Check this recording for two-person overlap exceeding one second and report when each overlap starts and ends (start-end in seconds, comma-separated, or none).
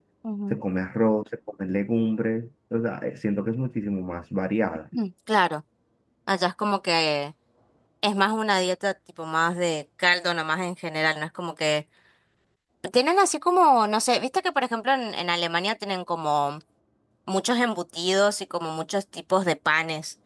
none